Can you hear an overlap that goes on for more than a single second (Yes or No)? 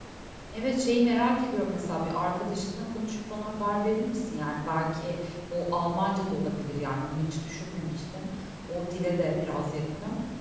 No